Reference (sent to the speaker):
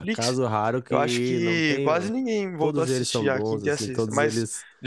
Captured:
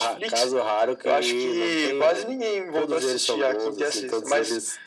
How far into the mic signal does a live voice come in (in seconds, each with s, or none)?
none